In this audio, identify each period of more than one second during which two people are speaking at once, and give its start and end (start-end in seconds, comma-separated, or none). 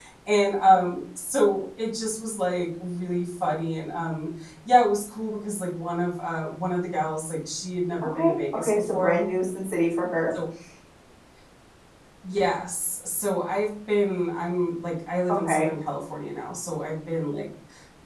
8.0-9.3